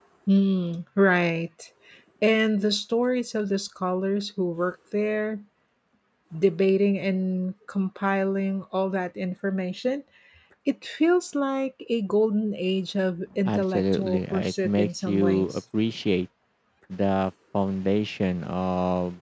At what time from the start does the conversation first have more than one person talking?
13.4 s

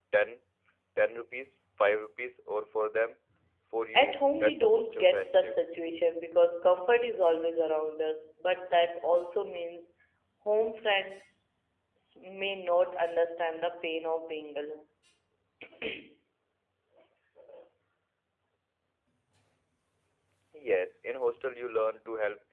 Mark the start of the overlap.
3.9 s

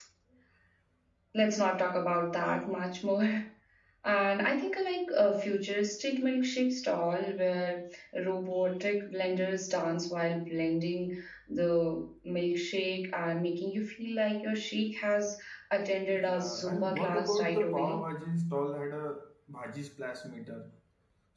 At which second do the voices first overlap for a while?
16.1 s

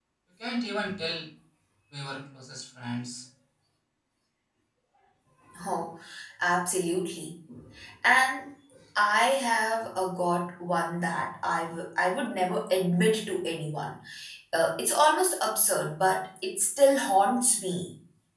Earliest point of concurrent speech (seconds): none

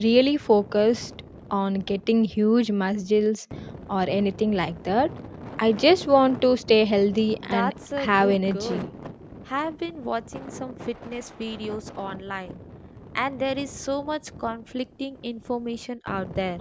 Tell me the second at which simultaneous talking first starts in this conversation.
7.4 s

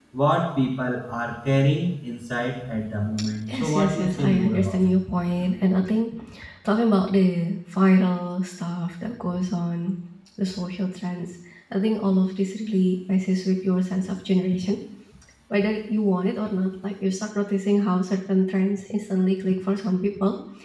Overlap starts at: 3.5 s

